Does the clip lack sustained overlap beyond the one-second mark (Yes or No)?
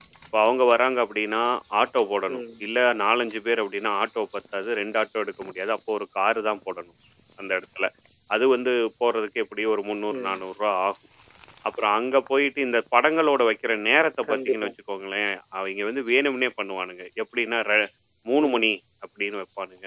Yes